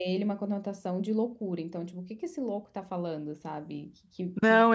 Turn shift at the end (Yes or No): Yes